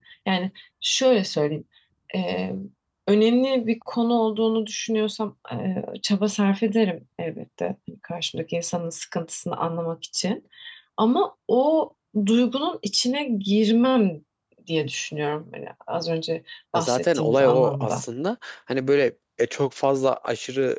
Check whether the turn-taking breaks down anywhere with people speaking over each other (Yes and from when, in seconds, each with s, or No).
Yes, from 16.7 s